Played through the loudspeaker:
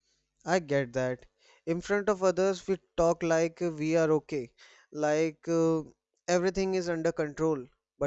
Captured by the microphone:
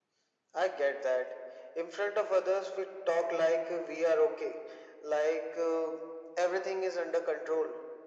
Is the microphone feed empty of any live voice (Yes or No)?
Yes